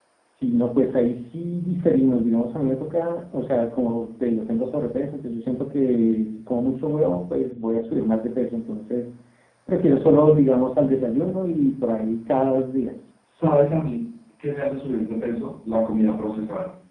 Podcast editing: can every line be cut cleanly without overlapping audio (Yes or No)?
Yes